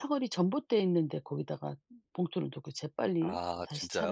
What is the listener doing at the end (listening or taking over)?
listening